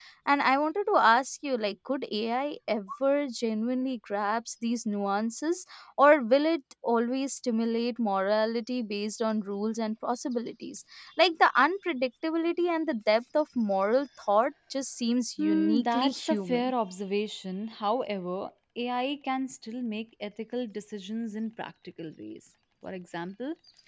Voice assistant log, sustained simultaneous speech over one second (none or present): present